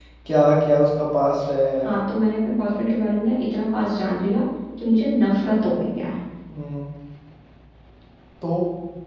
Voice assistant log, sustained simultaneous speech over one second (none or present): none